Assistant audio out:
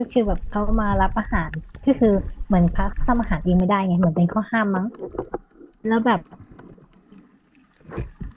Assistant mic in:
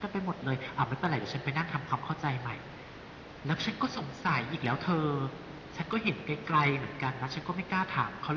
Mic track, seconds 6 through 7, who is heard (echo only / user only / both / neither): user only